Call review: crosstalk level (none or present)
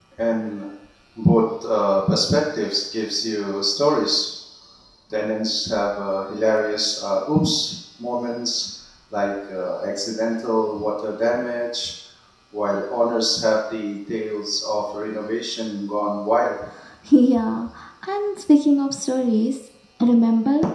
none